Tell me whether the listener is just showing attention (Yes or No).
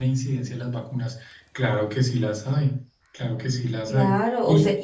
No